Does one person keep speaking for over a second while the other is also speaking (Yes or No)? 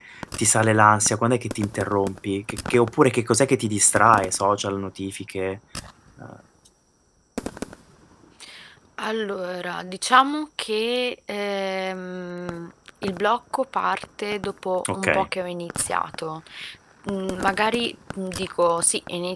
No